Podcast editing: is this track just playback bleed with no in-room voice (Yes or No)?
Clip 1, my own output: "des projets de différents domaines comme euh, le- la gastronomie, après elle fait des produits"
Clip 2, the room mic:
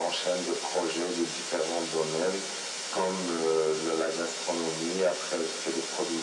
Yes